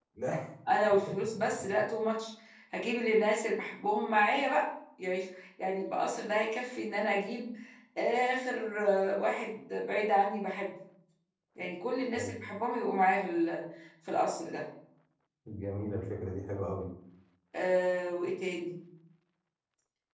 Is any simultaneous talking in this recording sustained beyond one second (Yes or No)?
No